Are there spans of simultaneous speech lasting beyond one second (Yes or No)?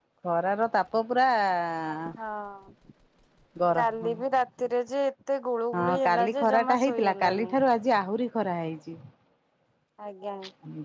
Yes